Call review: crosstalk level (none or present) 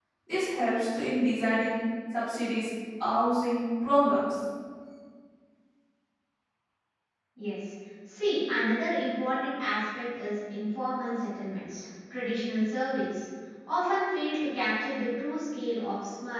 none